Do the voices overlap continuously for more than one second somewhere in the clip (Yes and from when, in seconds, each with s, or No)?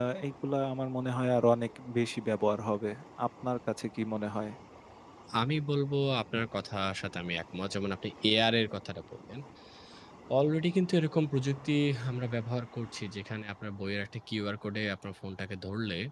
No